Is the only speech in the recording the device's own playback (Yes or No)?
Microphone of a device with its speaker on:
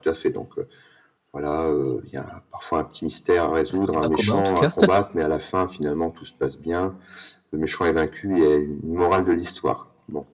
No